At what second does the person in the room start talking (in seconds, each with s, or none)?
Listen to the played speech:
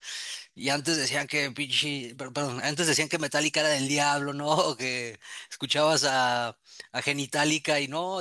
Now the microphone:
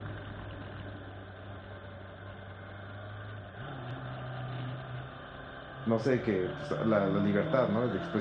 5.8 s